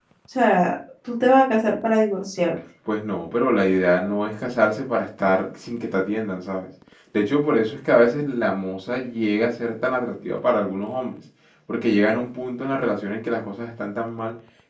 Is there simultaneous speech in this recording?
No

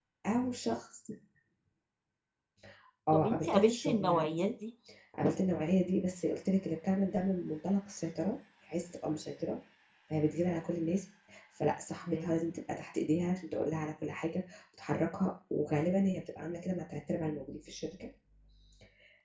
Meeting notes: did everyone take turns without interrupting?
No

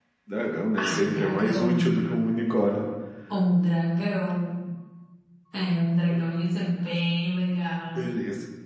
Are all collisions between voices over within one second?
No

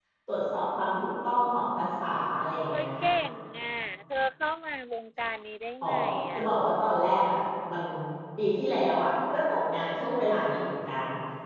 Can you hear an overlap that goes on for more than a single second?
No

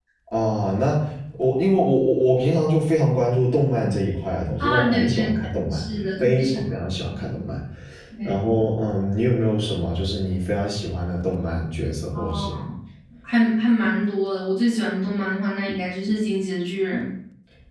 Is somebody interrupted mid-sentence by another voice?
Yes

